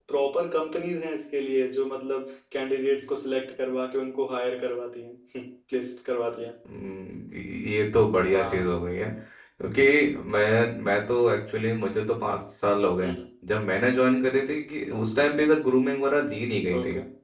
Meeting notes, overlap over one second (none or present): none